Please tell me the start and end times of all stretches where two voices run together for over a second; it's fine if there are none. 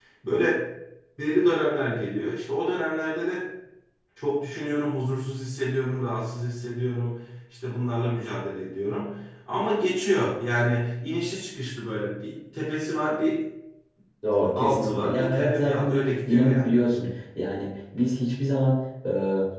14.6-16.8

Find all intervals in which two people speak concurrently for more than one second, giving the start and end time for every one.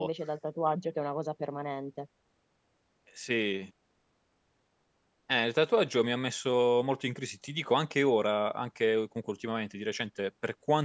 none

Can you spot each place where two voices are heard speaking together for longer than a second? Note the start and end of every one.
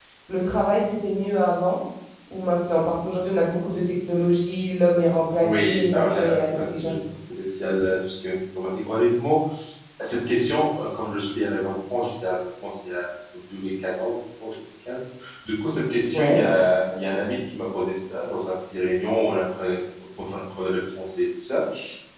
5.4-6.9

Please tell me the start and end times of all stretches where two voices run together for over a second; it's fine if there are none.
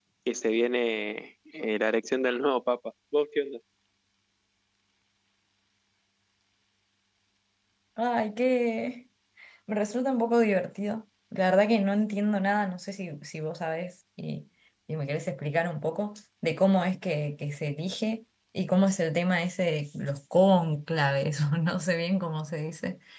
none

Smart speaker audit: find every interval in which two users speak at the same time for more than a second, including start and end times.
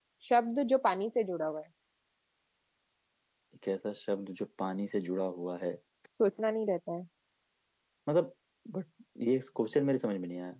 none

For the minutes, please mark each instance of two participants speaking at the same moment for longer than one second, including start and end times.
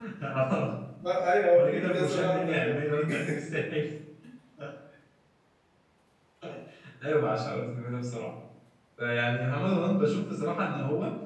1.5-3.6

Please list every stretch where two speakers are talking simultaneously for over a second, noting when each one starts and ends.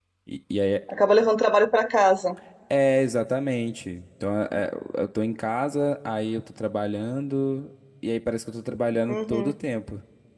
none

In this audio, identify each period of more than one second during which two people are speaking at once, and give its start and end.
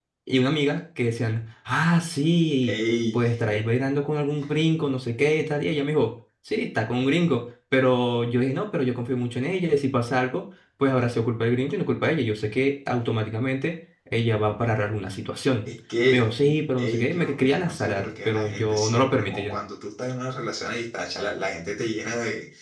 16.8-19.6

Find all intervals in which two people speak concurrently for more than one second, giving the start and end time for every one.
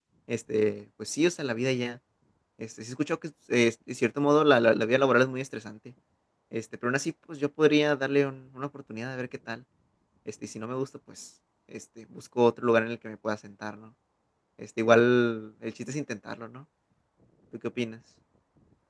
none

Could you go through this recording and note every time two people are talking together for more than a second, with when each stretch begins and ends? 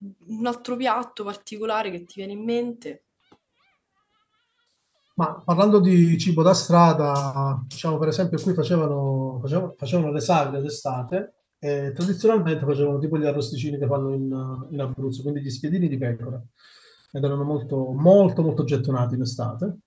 none

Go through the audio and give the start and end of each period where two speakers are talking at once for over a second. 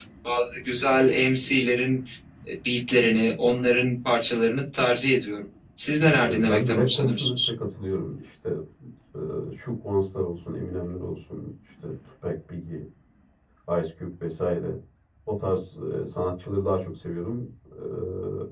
6.1-7.3

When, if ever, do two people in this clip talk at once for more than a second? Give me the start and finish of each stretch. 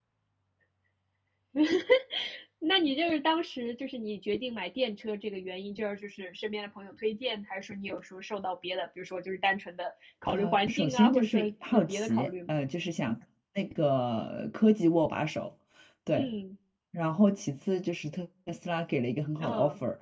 10.3-12.5

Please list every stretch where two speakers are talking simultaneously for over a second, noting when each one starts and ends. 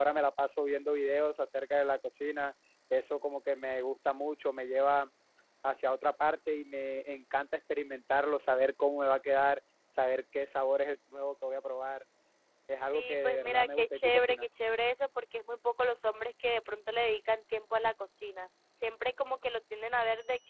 12.8-14.4

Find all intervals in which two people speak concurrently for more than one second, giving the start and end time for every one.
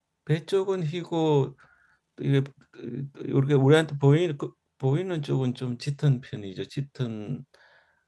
none

